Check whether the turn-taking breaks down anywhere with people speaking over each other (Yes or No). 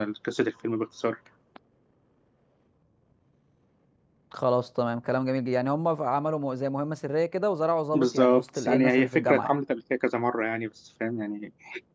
Yes